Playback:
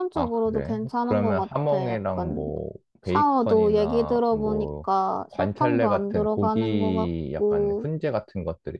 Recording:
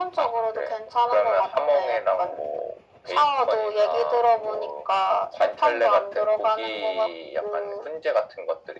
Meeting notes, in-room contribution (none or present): none